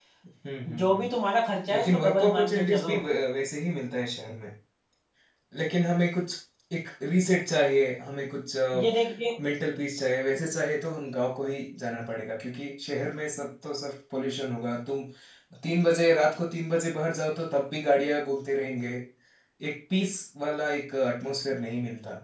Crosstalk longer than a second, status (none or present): present